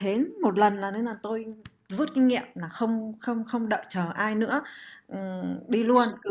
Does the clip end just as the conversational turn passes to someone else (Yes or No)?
No